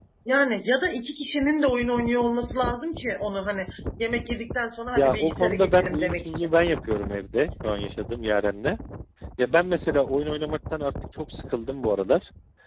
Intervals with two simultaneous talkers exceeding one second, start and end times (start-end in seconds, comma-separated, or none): 5.0-6.5